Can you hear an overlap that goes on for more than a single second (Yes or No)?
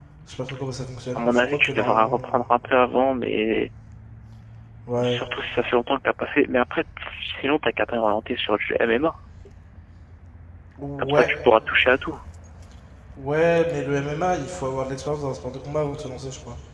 Yes